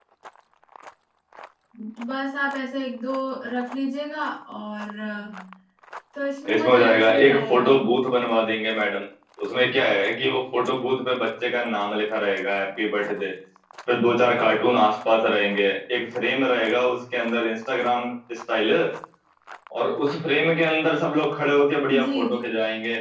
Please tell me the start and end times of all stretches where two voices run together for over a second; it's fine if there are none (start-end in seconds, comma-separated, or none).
6.5-7.7